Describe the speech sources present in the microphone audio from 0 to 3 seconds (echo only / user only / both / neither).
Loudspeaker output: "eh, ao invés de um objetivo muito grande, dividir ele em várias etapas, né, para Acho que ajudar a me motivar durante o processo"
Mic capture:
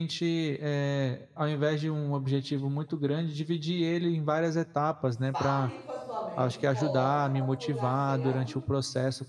echo only